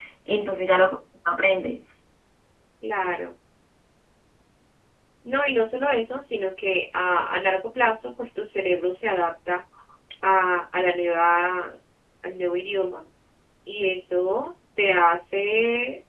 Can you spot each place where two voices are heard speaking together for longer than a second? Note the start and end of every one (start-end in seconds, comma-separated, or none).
none